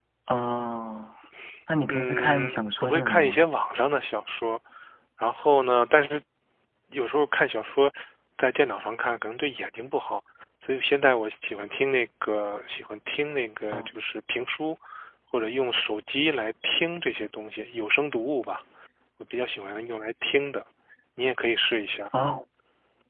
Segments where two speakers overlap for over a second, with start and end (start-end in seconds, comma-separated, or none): 1.9-3.4